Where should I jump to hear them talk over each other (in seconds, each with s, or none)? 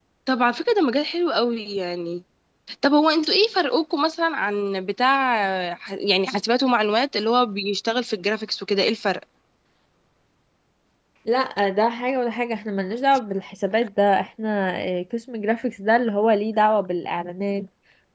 none